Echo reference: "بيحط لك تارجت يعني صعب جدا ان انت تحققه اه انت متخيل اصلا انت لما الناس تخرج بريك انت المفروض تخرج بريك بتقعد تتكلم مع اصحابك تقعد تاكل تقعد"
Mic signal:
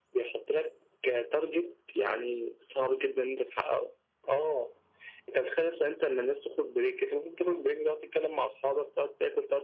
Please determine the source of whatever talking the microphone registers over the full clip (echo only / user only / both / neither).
echo only